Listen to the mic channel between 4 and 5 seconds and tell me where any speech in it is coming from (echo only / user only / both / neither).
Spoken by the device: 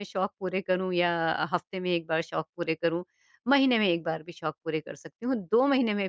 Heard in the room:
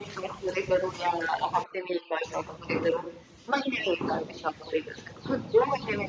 echo only